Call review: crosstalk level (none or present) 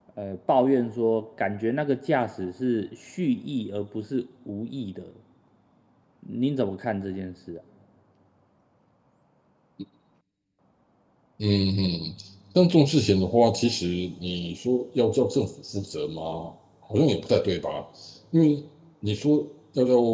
none